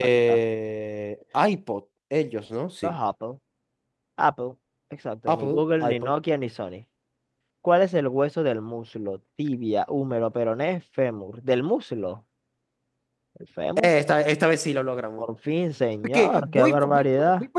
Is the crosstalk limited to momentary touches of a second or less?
No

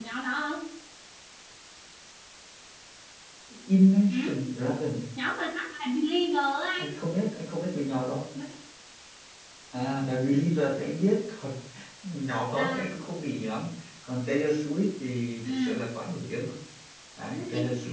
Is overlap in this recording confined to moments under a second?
Yes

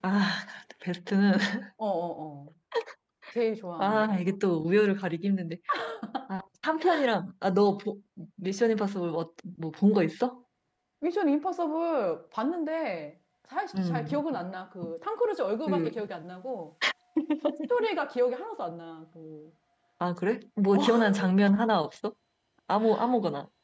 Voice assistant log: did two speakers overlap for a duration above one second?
No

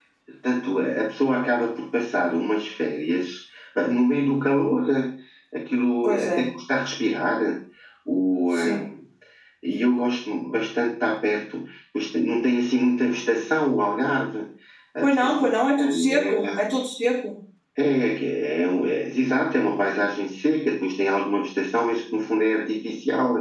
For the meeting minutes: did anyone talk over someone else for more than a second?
Yes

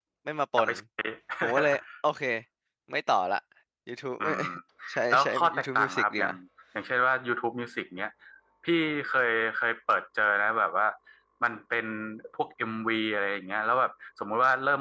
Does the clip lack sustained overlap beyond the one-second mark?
No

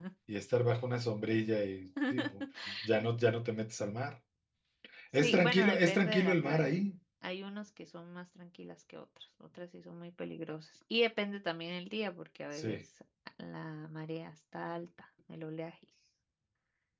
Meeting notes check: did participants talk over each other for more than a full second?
Yes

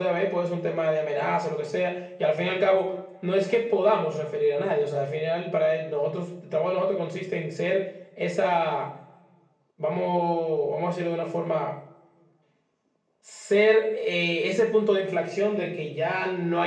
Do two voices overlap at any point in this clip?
No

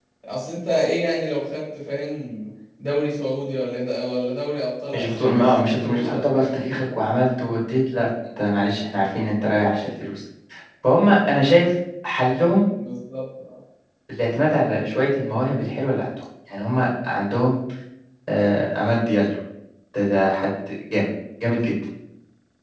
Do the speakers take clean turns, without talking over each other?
No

